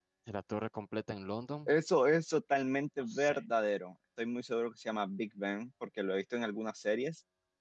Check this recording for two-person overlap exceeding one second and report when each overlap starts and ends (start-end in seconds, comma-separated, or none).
none